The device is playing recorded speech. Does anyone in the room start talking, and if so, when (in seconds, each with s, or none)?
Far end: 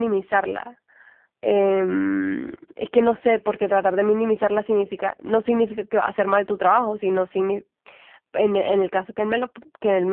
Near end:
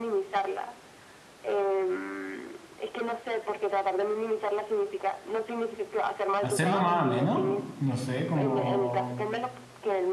6.4 s